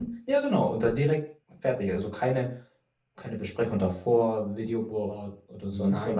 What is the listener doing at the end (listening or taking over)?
taking over